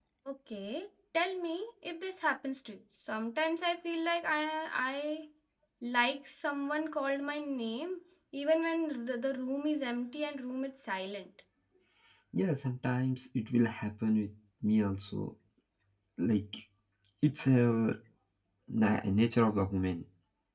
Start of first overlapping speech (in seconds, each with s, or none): none